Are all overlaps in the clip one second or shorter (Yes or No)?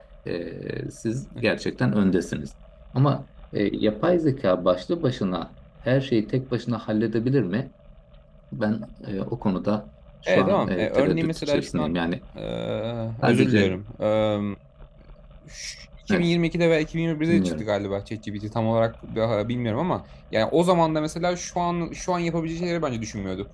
No